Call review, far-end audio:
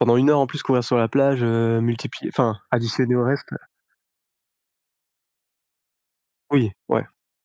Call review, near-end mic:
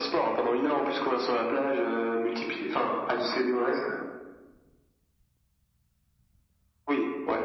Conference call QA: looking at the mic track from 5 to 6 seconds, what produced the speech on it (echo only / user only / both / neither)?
neither